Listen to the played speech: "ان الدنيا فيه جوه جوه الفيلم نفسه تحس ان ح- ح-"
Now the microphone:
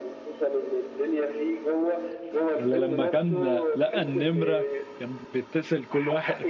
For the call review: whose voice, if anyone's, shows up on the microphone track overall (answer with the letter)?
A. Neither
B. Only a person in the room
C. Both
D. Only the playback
C